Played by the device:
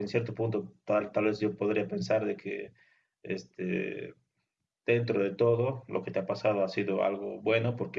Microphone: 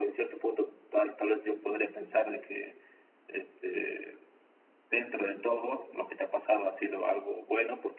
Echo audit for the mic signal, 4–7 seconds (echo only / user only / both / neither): echo only